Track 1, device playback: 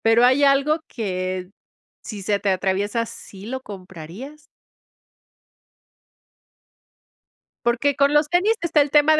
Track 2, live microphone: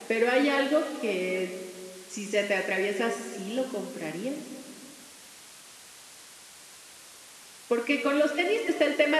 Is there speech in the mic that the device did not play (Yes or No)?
No